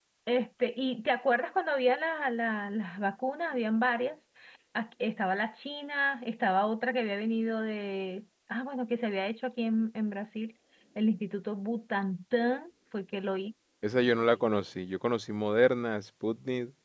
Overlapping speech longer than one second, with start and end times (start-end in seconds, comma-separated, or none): none